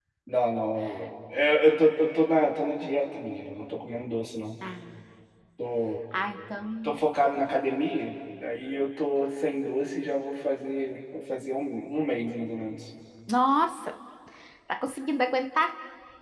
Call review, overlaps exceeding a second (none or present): none